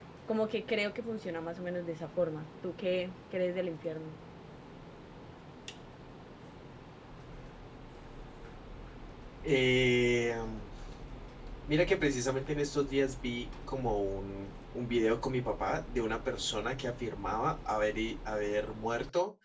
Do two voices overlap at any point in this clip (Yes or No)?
No